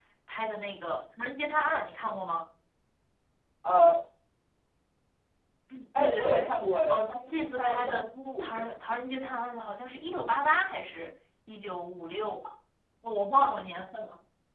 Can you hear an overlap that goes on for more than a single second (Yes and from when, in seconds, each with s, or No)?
Yes, from 6.0 s